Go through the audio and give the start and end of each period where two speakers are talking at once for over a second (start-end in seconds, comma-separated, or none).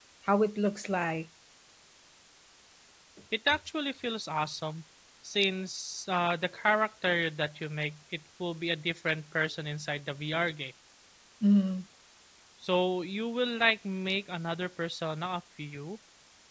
none